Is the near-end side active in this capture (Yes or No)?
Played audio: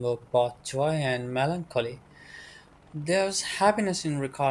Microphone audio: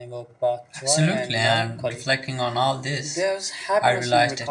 Yes